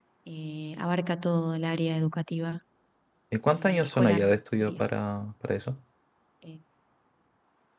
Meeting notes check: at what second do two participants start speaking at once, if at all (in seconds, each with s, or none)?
3.5 s